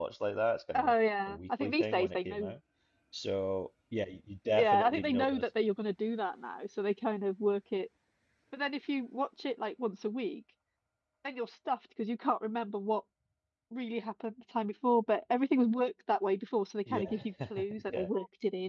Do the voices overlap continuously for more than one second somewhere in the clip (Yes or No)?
Yes